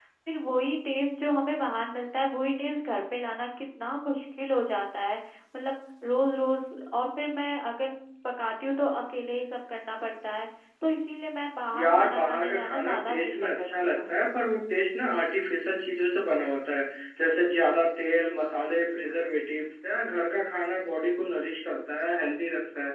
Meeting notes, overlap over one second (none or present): present